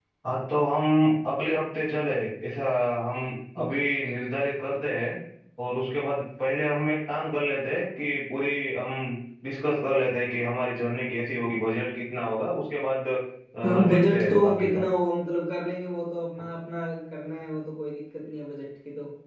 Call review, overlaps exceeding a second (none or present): present